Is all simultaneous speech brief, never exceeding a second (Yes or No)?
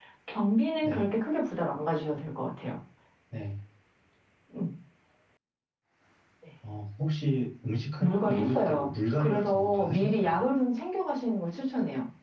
No